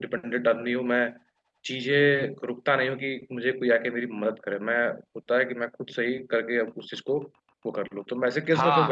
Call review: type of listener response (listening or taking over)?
taking over